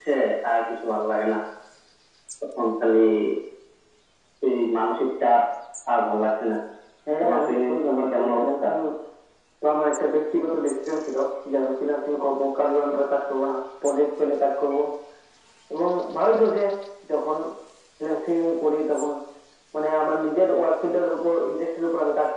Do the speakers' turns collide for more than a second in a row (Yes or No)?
Yes